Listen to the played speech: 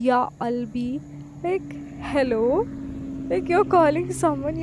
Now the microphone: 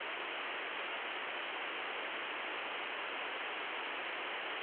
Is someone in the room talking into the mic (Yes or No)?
No